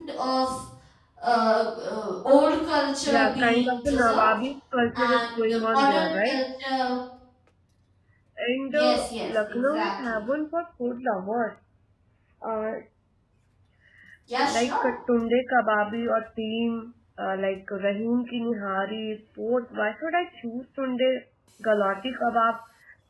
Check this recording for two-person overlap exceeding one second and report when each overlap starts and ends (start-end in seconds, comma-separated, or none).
3.1-4.3, 5.0-6.4, 8.7-10.2